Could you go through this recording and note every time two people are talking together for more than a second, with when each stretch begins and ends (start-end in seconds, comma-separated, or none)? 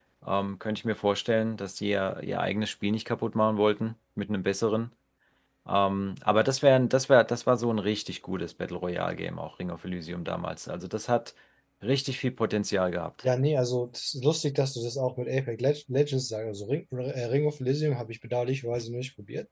none